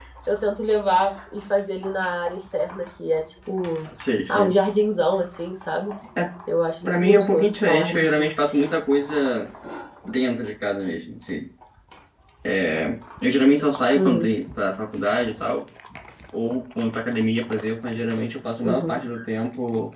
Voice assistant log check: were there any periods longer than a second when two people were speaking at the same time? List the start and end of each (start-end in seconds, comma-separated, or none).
6.8-8.3